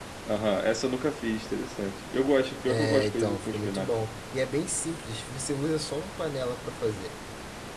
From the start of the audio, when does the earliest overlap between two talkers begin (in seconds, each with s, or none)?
2.7 s